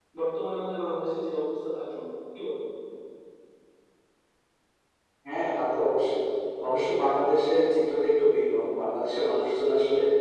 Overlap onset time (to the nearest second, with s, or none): none